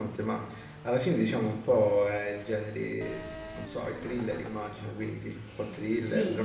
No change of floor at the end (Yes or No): No